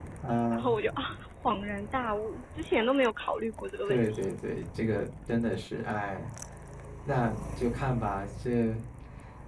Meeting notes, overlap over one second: none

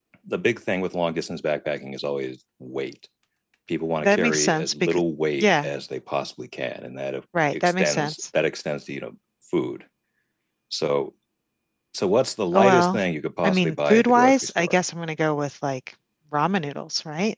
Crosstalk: present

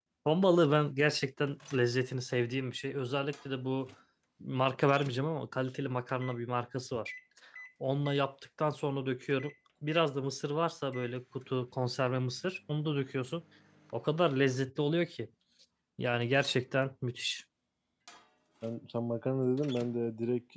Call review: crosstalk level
none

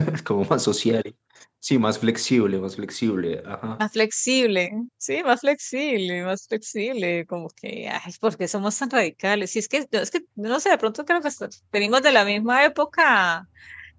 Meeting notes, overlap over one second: none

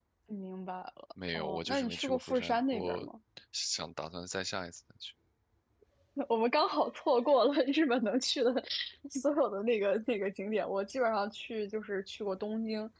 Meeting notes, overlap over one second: present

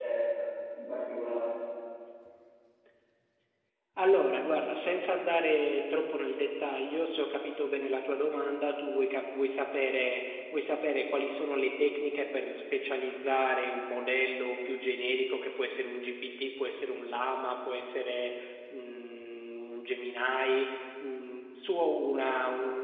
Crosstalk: none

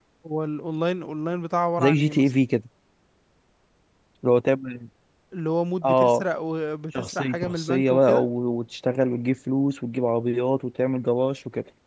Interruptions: present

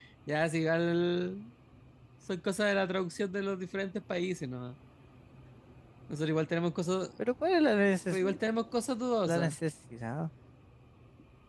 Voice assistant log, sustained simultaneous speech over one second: none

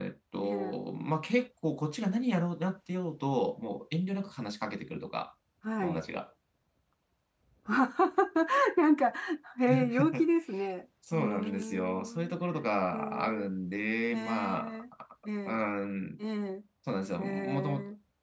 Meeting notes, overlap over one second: present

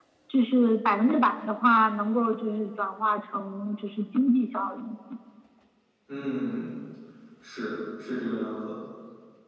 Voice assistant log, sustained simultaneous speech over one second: none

